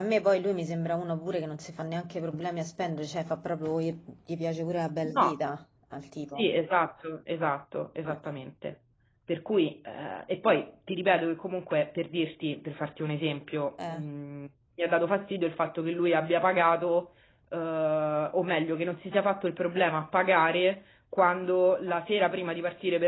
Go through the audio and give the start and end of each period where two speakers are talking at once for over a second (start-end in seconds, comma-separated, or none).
none